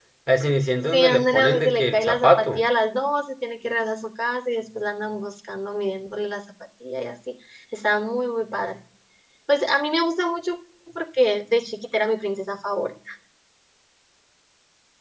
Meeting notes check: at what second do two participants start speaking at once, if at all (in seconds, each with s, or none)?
0.9 s